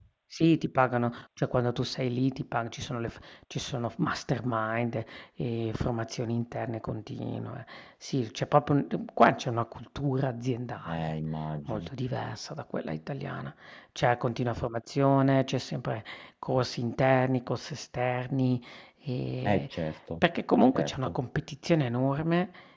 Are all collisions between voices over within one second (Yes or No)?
Yes